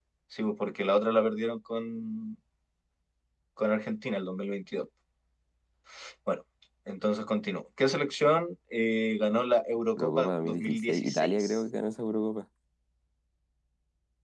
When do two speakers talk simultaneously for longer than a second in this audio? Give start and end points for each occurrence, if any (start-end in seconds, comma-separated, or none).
10.0-11.6